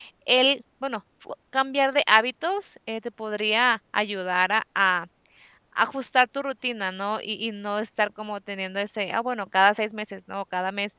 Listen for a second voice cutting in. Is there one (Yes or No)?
No